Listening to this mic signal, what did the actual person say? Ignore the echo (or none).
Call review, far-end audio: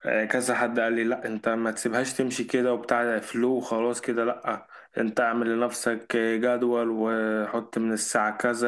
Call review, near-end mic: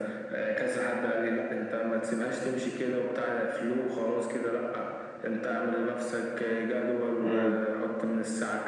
مم.